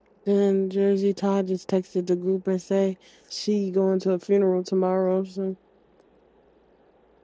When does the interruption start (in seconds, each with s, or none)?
none